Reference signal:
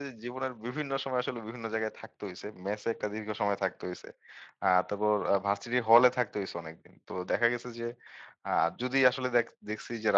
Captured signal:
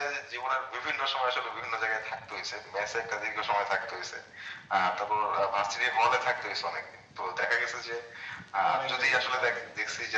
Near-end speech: present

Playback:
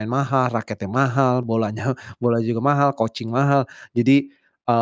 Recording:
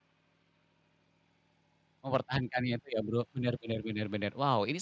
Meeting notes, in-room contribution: present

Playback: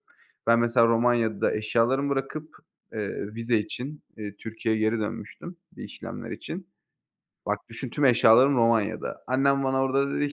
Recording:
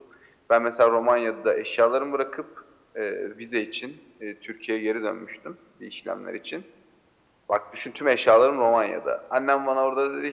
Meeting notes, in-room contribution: none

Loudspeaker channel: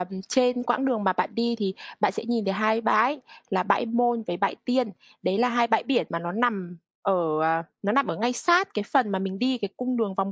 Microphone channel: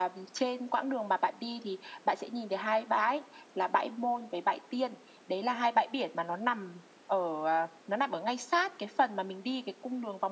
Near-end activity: none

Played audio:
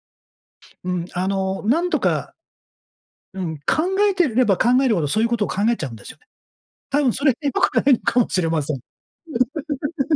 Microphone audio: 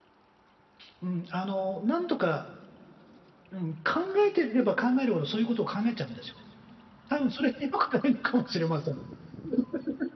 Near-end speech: none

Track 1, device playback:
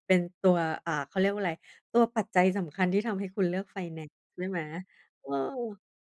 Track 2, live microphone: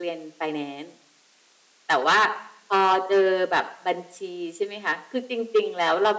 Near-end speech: present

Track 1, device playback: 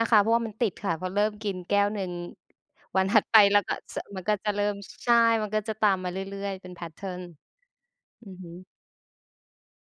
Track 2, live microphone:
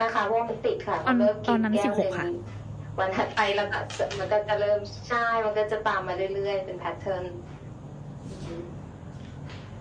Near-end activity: present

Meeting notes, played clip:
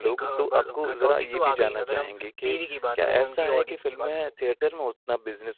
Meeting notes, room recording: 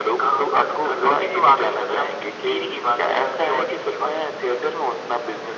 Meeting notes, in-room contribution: none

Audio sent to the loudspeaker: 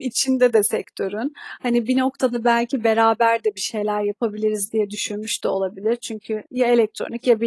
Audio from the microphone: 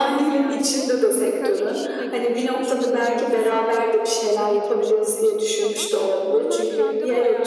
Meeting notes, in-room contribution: present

